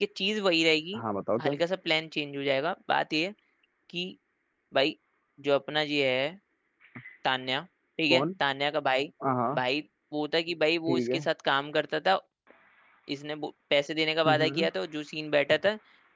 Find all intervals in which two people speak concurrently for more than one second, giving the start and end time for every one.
none

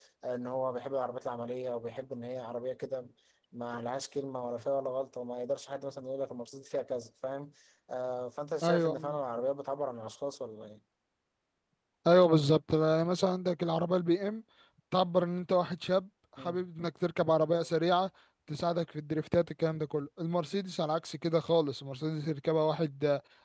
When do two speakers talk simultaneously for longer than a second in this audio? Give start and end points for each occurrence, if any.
none

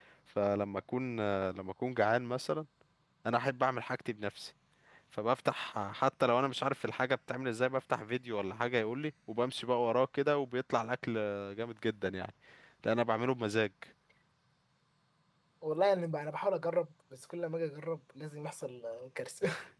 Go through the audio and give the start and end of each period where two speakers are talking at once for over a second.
none

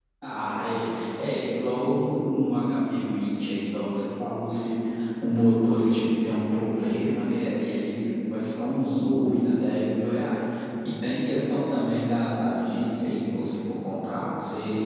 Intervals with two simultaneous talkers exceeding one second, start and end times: none

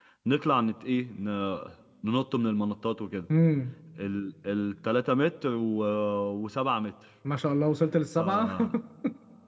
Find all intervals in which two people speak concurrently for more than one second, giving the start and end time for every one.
none

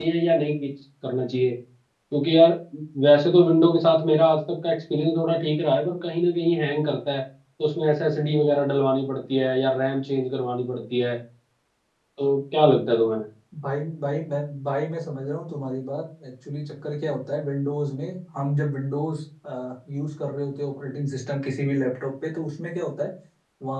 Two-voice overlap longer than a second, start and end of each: none

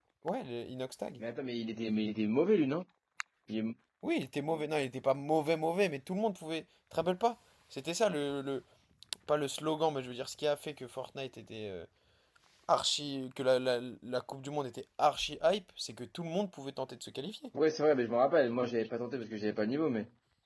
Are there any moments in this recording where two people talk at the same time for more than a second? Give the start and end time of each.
none

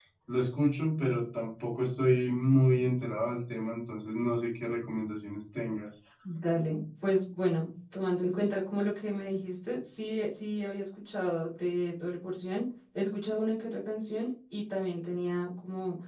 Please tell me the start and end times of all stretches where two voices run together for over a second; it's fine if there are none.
none

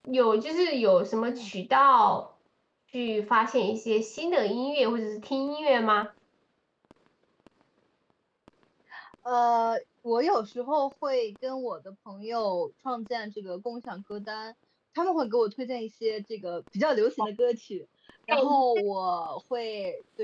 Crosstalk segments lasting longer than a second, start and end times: none

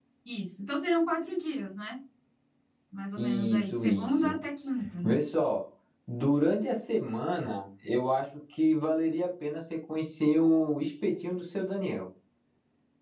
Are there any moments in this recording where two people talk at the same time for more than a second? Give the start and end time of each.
3.2-4.4

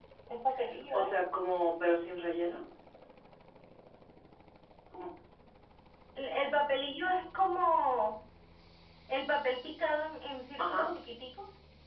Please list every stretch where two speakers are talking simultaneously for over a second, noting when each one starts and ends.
none

